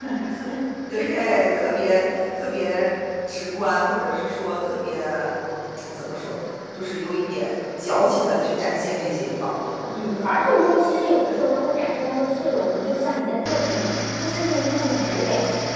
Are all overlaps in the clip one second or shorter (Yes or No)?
Yes